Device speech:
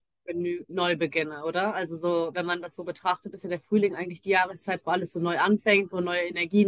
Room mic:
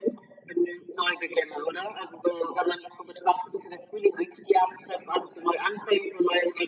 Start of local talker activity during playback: none

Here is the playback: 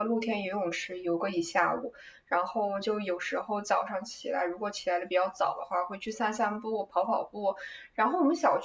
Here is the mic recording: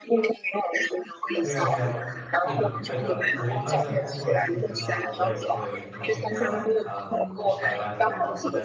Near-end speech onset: 1.4 s

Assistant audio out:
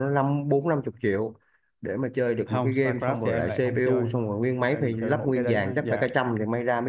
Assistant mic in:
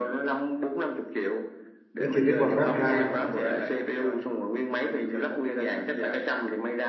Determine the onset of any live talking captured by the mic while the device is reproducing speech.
2.0 s

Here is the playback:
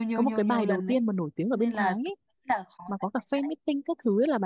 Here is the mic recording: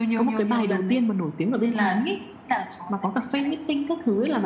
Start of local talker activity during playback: none

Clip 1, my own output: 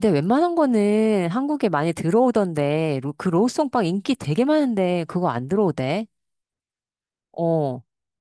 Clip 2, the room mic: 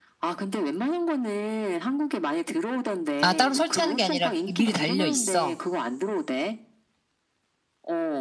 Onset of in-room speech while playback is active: 3.2 s

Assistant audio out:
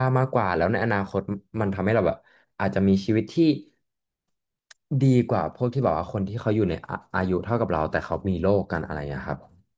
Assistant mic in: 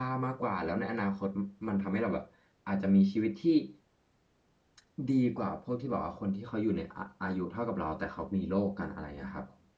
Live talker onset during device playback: none

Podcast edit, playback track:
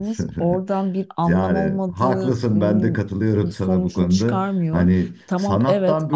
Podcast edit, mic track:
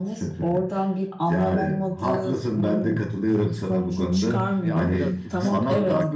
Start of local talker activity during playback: 4.6 s

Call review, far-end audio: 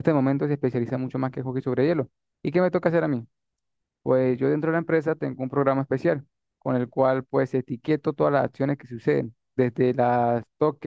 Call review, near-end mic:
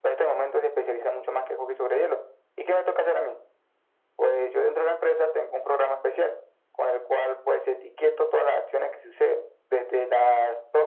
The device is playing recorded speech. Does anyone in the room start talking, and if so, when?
none

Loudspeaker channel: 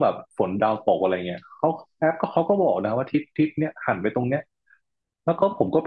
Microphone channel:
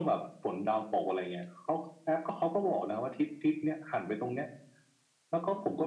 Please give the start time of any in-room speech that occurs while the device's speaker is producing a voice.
none

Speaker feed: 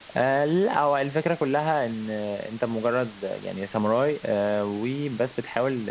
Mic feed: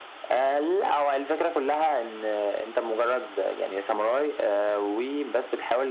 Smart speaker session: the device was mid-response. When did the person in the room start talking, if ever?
none

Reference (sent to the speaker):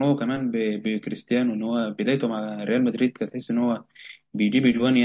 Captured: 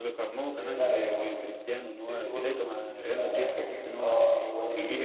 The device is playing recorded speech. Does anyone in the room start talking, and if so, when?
0.6 s

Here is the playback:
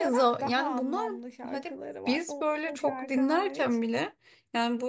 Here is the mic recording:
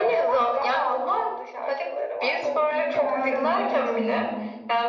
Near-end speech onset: 2.5 s

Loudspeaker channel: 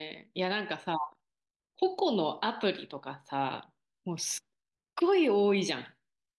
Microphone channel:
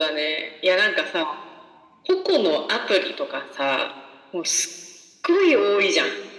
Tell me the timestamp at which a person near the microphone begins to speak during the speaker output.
none

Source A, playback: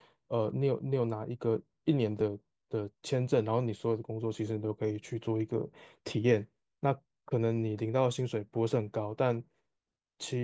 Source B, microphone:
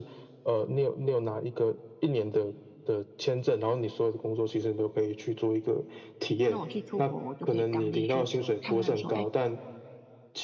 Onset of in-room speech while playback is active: 6.5 s

